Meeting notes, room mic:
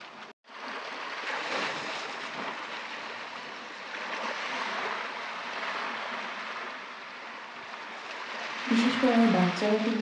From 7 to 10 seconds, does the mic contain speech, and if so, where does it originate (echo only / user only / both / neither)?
user only